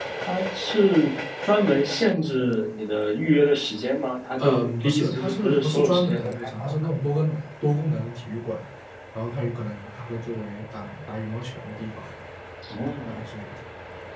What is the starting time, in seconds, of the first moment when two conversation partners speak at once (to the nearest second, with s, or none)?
4 s